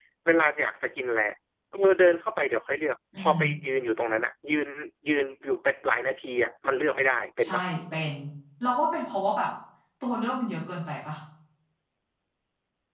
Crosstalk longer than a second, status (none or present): none